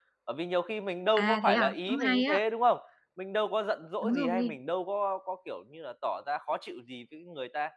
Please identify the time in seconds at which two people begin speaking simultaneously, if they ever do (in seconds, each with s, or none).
1.2 s